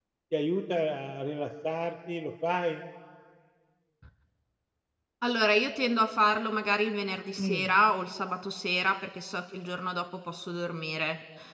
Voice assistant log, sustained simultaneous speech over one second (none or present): none